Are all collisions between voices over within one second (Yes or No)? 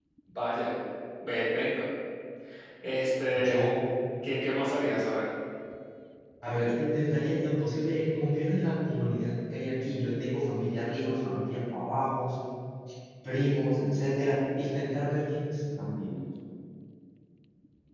Yes